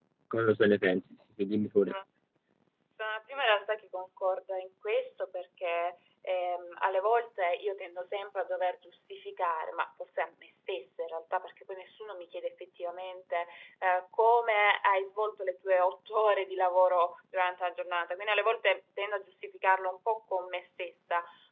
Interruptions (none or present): none